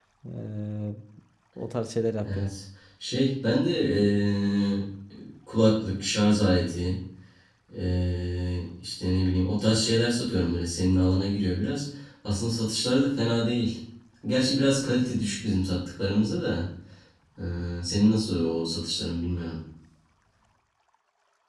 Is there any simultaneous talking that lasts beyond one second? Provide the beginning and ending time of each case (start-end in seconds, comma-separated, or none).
none